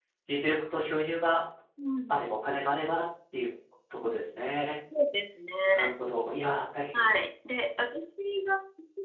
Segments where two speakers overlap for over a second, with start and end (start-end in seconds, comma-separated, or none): none